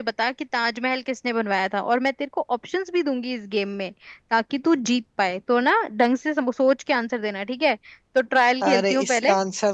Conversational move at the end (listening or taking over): taking over